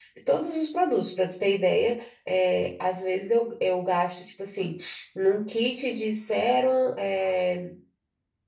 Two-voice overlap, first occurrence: none

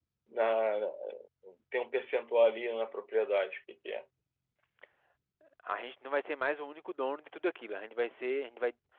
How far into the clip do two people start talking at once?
none

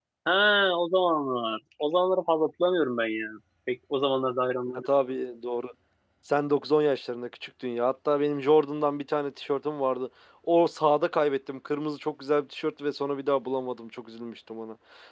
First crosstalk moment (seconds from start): none

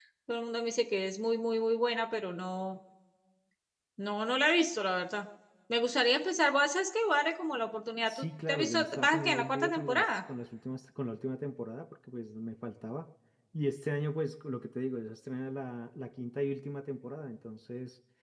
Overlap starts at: 8 s

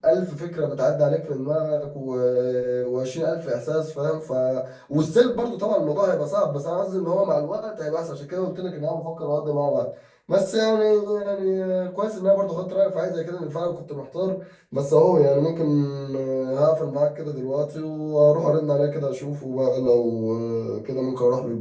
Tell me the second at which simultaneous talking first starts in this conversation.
none

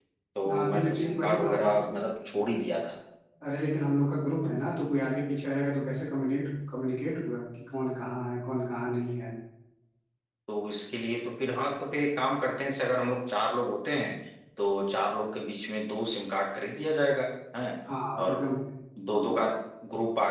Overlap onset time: 1 s

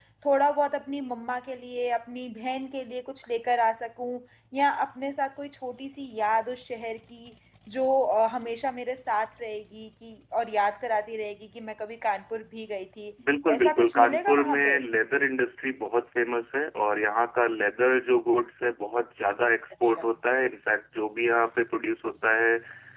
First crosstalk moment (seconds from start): 13 s

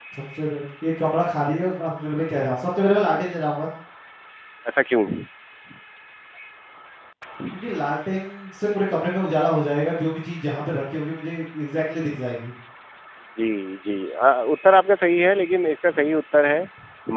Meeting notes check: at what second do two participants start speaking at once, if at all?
none

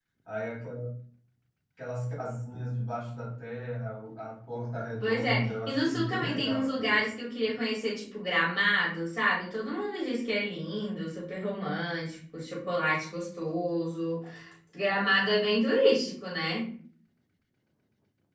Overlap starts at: 5 s

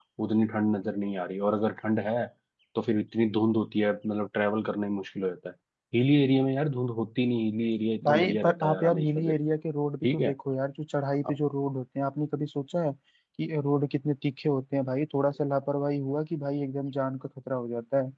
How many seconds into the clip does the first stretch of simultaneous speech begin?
8 s

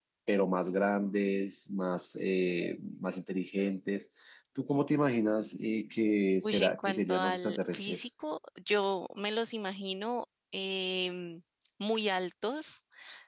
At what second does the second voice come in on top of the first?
6 s

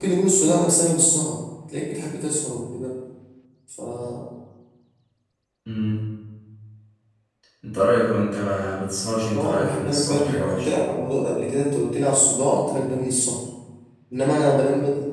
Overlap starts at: 9 s

